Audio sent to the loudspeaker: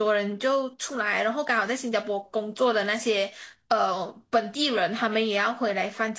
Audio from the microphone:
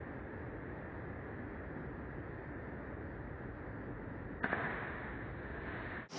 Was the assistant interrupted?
No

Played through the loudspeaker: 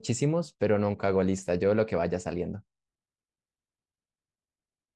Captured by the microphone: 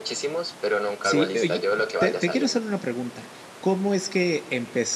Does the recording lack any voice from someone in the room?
No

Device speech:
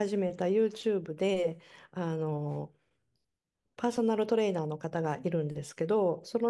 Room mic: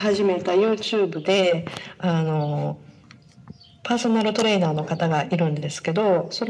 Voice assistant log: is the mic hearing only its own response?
Yes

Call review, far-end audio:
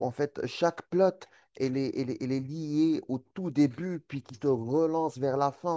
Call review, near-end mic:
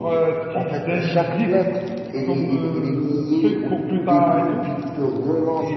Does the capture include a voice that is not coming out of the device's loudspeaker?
Yes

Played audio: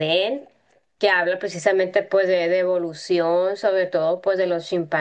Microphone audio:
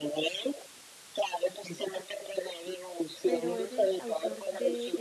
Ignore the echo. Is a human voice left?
Yes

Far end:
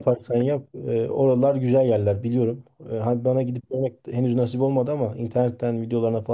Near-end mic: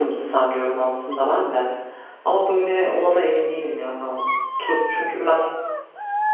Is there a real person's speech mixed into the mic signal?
Yes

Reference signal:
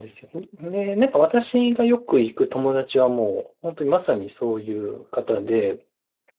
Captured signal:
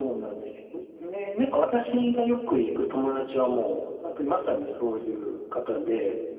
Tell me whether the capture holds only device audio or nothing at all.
Yes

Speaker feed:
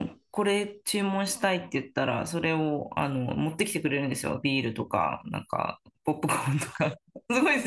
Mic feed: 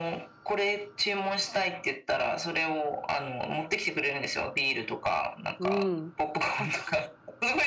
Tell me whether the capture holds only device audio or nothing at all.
No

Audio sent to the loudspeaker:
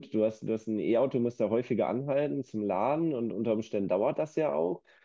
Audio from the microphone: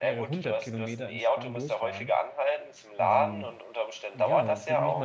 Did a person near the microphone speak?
Yes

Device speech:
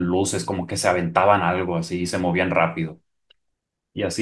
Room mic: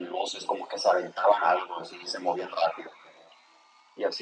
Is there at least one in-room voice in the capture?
No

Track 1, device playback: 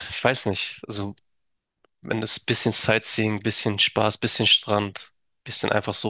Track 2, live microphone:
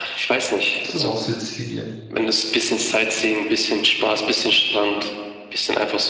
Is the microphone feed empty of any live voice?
No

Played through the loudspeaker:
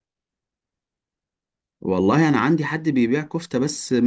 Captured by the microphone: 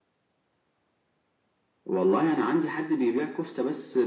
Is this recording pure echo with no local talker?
Yes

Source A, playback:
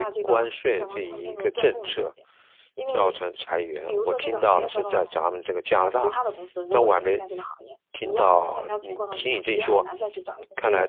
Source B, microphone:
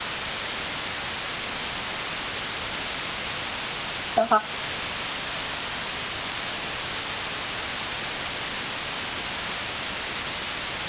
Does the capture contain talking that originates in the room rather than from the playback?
Yes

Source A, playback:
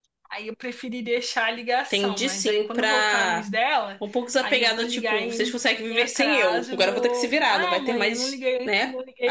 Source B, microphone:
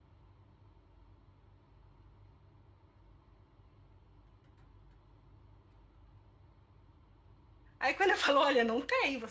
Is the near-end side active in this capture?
Yes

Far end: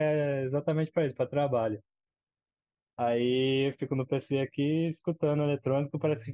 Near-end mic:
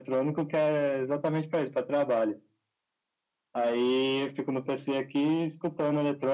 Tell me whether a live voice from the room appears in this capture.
No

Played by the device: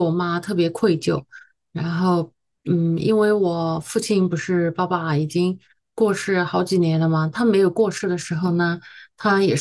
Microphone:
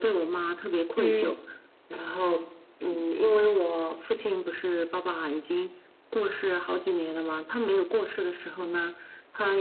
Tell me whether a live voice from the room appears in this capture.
Yes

